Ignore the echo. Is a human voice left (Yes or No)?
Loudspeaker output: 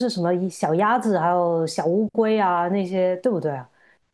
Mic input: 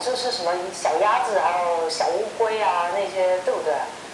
No